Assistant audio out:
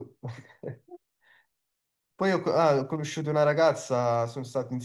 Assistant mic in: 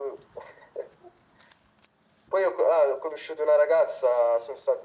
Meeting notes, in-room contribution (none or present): none